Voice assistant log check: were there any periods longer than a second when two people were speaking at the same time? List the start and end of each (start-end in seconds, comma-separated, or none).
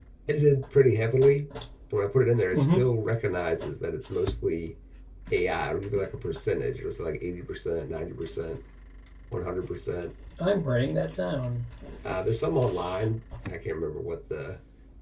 none